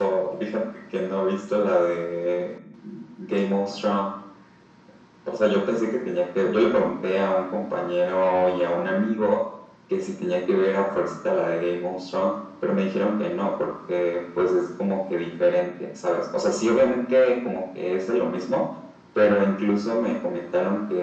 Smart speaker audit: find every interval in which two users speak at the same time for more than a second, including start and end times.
none

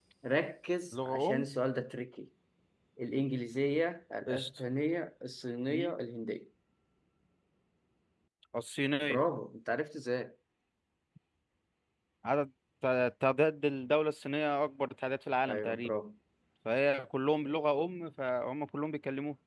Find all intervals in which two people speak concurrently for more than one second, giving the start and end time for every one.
none

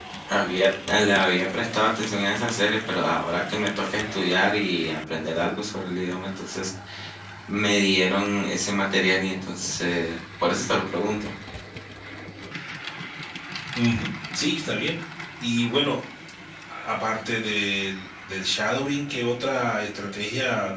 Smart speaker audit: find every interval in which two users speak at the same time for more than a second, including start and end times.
none

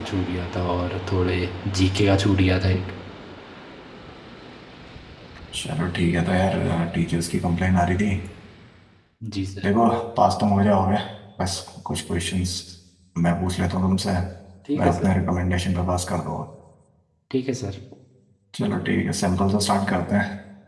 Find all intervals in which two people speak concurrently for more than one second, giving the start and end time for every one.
none

